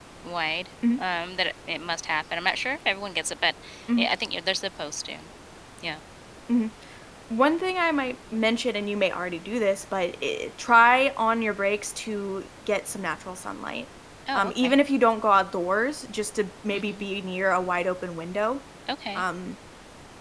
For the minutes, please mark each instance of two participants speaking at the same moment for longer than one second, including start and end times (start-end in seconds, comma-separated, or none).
none